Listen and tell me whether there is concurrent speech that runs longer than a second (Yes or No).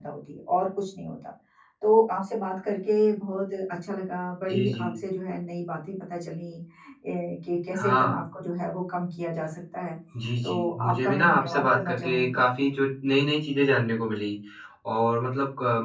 Yes